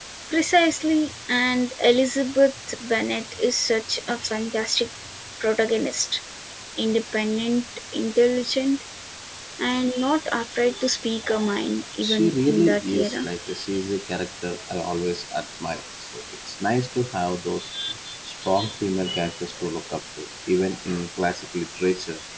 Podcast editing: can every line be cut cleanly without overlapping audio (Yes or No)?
No